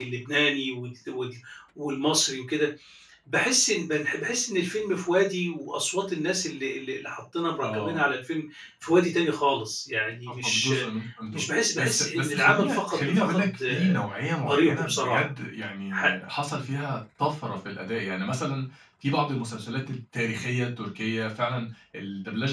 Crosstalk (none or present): present